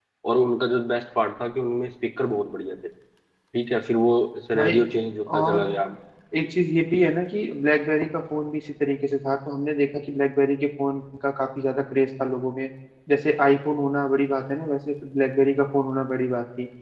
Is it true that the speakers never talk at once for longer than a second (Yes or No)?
Yes